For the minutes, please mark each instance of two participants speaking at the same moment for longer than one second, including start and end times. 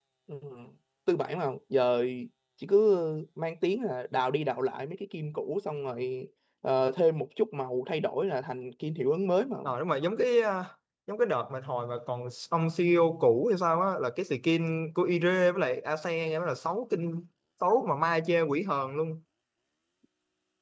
none

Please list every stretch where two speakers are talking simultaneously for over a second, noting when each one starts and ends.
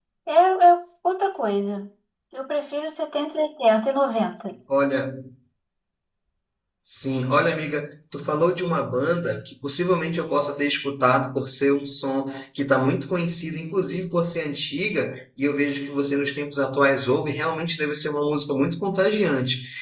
none

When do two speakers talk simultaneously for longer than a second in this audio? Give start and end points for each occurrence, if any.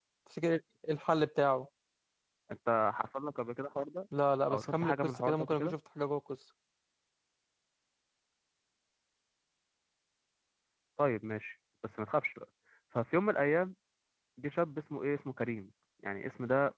4.5-5.7

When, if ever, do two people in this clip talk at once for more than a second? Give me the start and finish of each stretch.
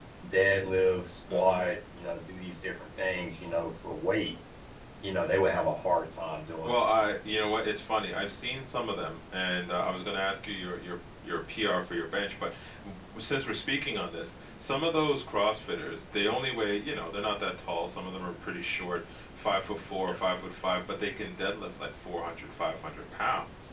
none

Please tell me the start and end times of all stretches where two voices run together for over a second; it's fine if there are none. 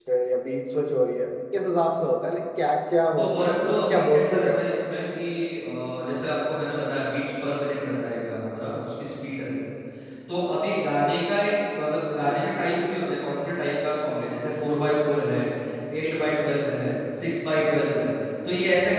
3.2-4.8

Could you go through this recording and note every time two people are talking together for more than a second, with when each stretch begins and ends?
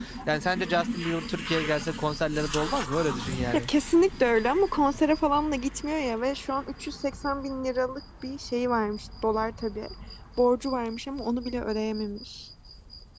none

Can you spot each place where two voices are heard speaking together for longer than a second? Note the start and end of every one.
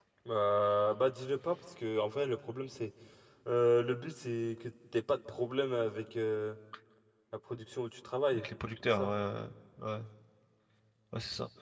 none

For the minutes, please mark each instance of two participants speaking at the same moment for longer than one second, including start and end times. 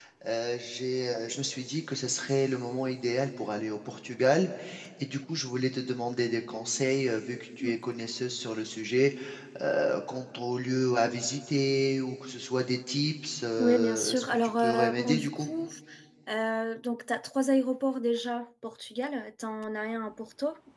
13.6-15.5

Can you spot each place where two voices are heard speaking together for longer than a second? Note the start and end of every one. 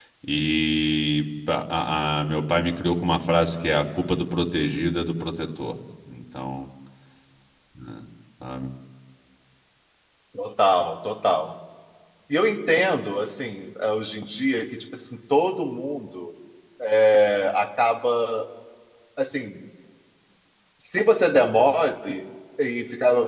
none

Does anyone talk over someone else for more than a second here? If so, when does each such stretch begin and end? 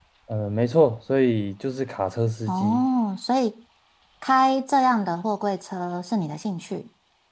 none

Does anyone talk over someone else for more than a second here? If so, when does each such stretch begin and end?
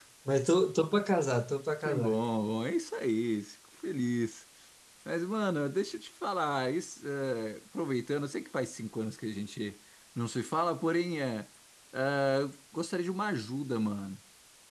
none

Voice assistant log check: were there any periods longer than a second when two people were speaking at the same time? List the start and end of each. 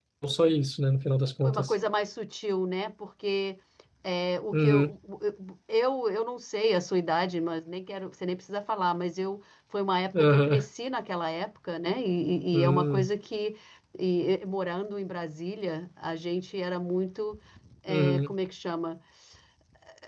none

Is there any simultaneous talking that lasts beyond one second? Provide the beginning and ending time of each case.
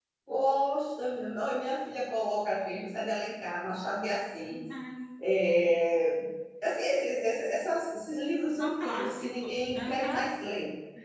8.5-10.3

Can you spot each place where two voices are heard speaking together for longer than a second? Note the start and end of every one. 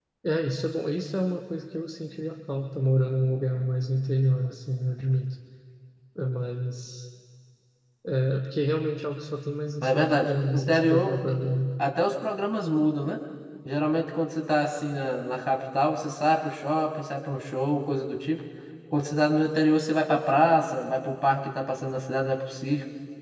9.8-11.2

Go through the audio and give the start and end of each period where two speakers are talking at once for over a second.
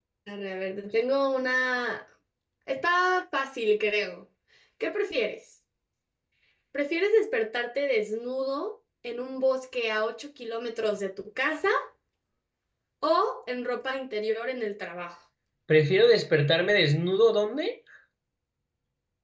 none

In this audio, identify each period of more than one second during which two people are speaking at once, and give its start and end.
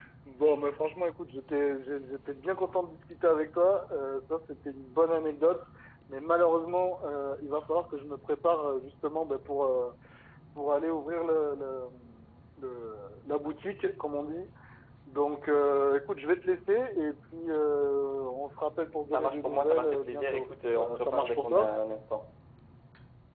19.1-21.7

